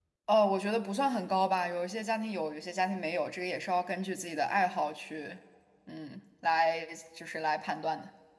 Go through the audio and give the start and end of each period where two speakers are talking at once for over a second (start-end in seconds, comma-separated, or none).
none